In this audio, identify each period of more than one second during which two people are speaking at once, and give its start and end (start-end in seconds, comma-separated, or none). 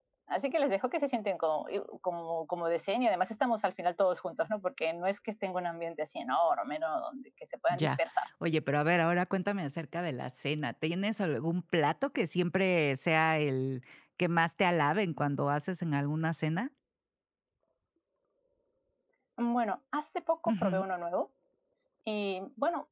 none